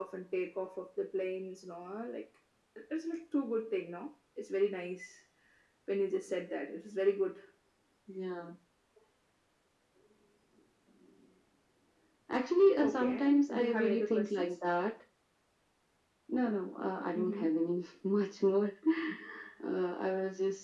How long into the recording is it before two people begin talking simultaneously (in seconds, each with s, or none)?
12.8 s